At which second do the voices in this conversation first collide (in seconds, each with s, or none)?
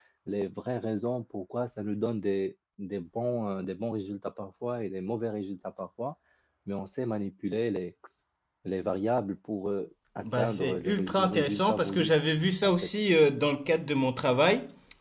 10.2 s